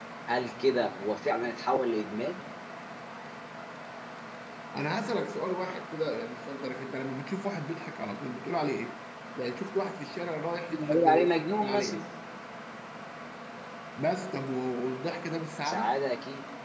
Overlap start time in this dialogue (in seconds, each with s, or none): 10.7 s